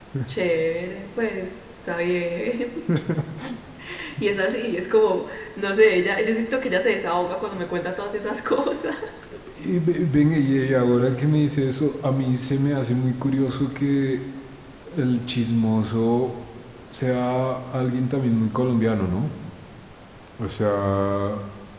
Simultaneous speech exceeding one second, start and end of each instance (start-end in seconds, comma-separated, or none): none